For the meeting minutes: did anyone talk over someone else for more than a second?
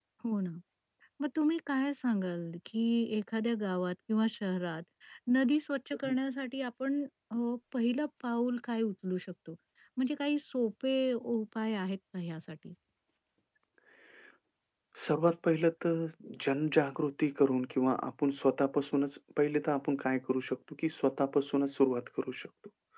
No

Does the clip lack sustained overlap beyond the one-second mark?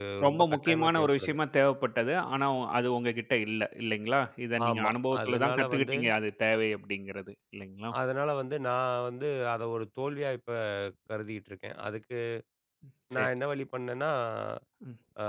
No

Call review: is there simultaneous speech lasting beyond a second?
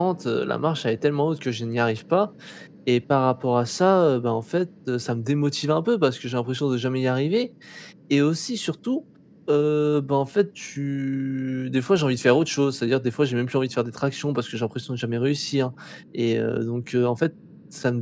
No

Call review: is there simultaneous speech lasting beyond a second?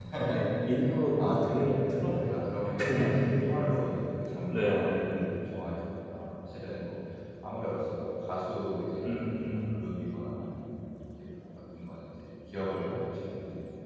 Yes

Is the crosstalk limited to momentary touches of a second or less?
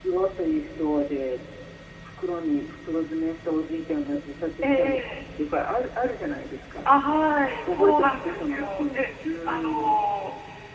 No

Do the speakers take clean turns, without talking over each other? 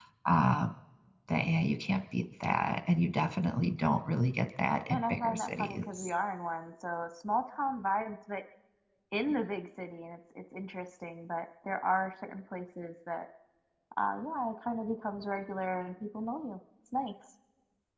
No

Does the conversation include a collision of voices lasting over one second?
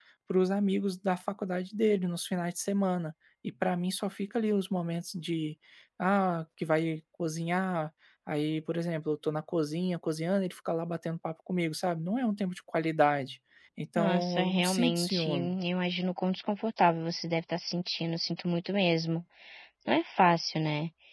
Yes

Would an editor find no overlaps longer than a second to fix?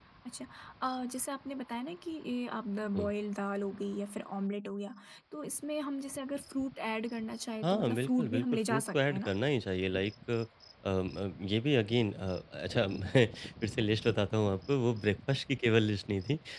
No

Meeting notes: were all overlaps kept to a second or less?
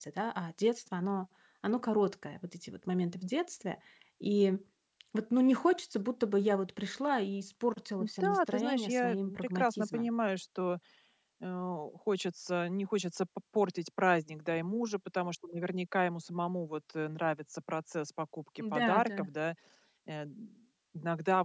No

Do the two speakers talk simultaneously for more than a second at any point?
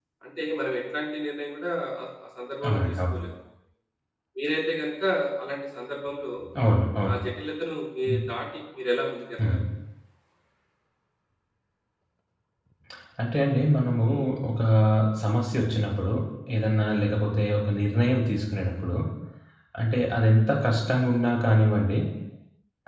No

